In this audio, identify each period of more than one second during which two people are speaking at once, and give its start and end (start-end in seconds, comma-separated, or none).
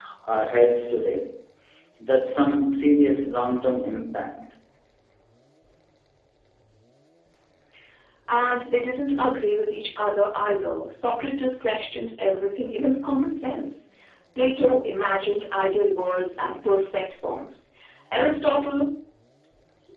none